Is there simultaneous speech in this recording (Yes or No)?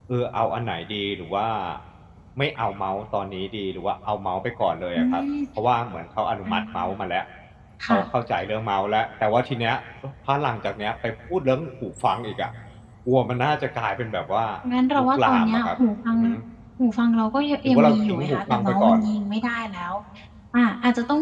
Yes